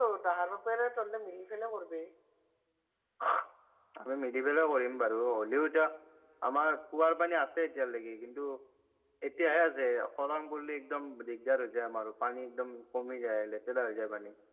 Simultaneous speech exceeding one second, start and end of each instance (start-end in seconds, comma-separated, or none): none